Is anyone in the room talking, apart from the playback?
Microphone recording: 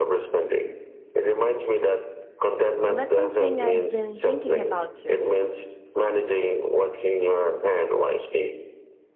Yes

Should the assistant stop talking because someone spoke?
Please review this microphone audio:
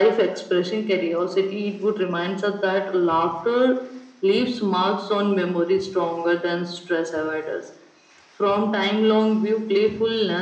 No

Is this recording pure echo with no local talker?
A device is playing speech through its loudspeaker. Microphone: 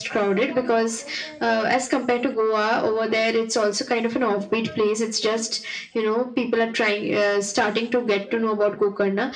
Yes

